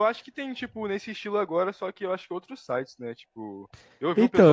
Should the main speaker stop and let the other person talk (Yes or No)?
Yes